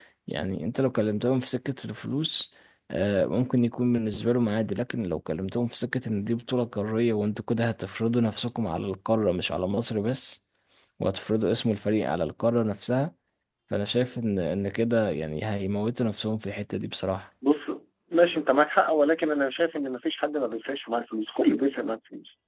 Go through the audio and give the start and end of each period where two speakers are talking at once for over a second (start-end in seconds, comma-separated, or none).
none